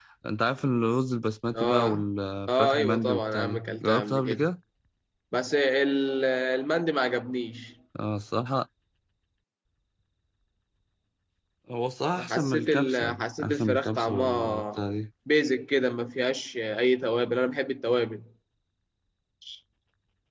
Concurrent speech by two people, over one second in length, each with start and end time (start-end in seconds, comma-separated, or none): 2.5-4.5, 12.2-14.8